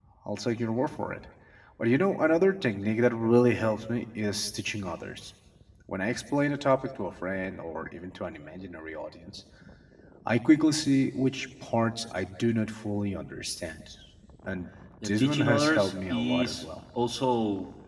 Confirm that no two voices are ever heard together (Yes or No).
No